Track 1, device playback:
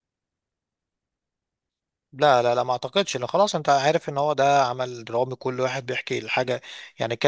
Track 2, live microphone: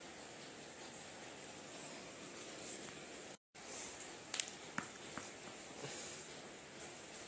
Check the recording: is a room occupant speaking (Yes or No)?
No